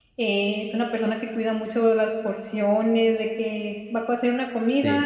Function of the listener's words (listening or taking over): listening